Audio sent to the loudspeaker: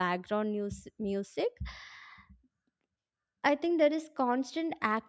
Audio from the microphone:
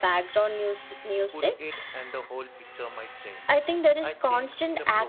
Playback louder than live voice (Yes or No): Yes